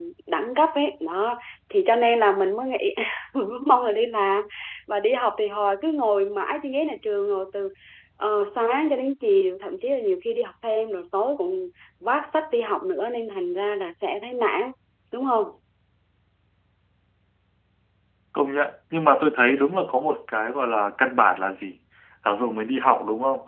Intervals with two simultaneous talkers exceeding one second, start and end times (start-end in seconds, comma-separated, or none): none